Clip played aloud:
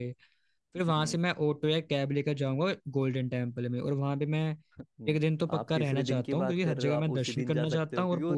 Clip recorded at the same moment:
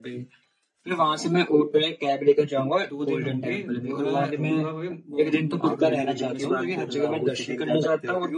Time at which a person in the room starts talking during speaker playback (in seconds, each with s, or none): 2.8 s